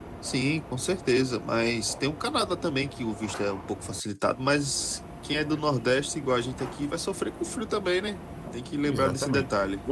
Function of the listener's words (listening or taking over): taking over